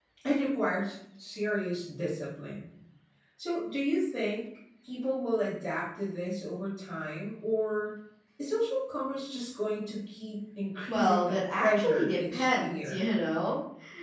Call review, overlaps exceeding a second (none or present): present